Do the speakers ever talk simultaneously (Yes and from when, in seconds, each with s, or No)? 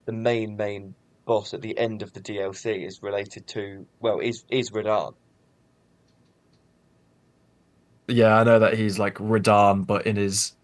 No